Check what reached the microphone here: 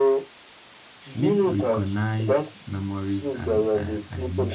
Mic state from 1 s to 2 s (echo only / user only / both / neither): both